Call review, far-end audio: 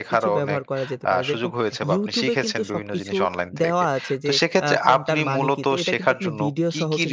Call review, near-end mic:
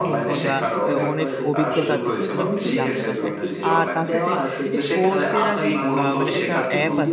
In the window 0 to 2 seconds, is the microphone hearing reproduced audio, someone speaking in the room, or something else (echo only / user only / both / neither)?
both